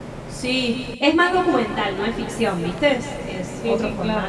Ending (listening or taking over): taking over